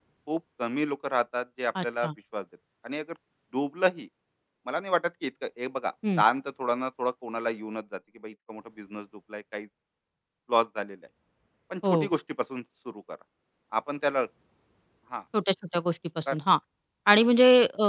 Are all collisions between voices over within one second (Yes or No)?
Yes